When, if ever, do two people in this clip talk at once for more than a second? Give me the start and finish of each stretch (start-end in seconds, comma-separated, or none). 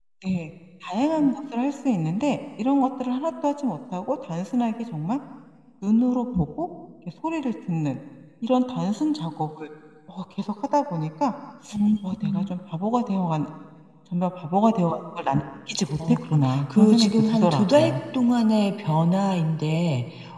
16.1-17.9